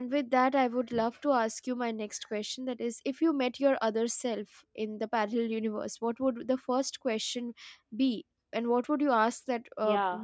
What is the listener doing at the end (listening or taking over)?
taking over